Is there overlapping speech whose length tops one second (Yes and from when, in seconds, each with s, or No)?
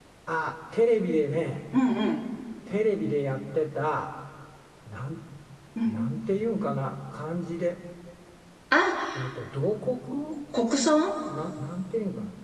No